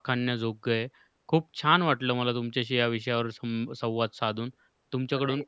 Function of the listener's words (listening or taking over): listening